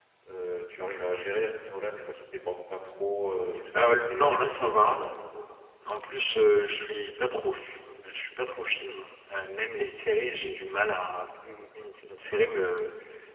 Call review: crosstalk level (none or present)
present